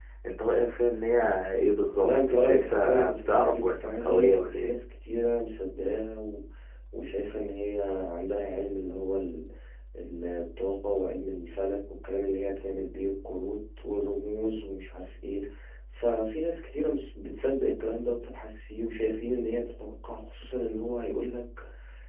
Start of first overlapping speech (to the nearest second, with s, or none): 2 s